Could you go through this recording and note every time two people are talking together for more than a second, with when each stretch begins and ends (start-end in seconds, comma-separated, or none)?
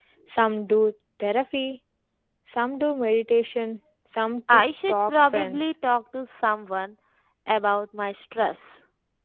4.5-5.7